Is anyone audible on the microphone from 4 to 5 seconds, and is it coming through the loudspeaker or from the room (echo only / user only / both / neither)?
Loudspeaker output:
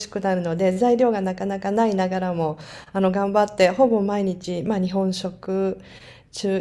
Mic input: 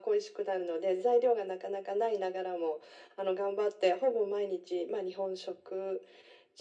echo only